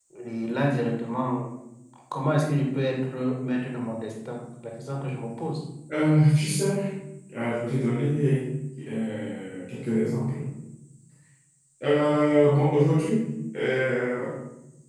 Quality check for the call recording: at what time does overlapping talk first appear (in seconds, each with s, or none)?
none